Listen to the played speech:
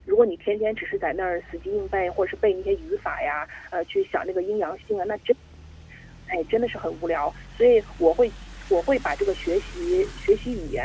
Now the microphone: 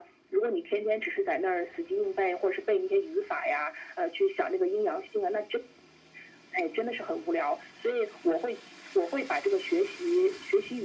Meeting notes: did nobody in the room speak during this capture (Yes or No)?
Yes